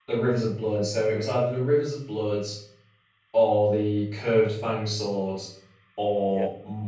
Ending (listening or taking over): listening